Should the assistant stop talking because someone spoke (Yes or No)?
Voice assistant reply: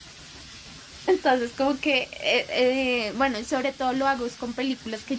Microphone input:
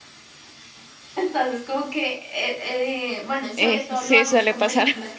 Yes